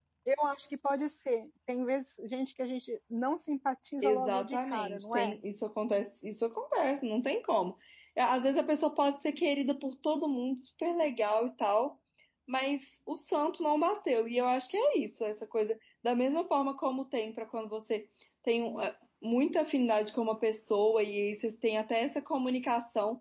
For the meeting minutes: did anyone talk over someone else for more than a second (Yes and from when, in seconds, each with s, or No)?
Yes, from 4.0 s